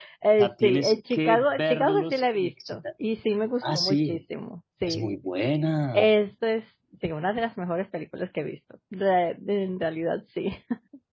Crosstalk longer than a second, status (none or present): present